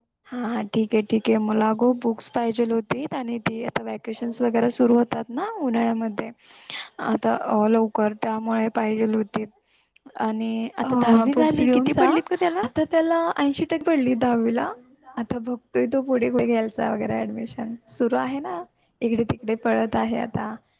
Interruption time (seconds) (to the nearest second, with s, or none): 11 s